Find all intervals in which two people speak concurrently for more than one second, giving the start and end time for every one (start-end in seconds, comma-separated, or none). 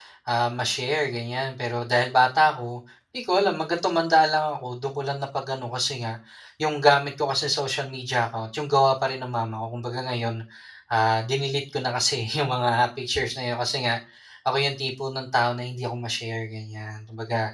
none